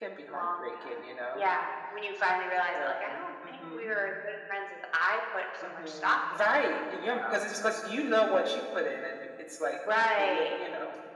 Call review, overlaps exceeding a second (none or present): present